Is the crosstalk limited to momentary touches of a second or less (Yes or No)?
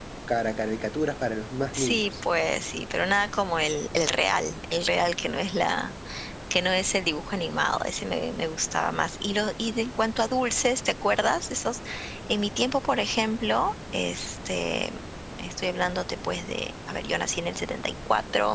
Yes